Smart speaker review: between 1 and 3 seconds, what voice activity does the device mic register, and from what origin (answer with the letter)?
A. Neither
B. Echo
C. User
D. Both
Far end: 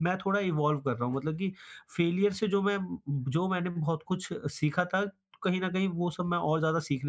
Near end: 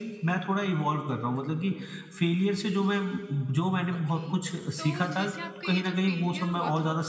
B